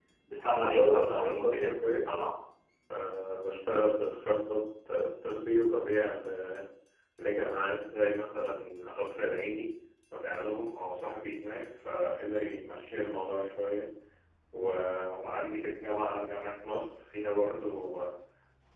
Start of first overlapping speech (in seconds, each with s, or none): 0.5 s